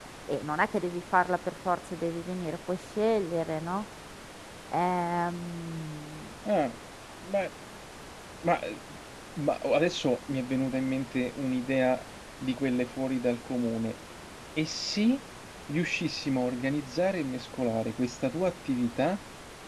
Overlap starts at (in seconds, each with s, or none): none